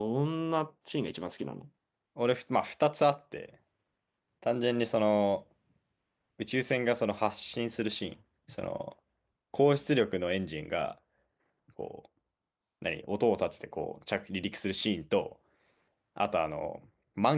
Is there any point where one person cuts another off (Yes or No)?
No